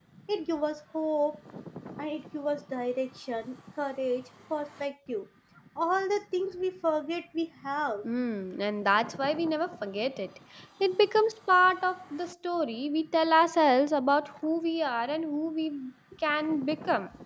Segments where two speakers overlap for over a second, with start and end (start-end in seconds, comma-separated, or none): none